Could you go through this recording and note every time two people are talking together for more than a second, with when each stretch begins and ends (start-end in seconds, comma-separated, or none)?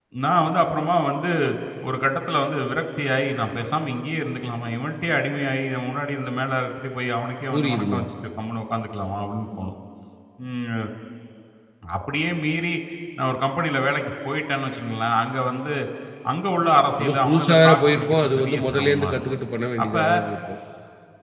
17.0-19.2